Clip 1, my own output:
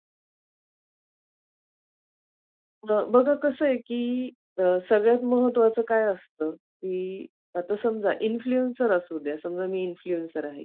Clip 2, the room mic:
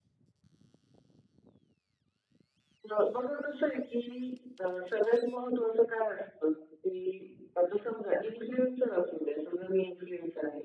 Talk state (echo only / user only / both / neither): echo only